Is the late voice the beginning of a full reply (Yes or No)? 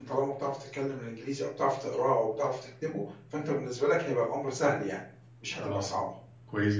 Yes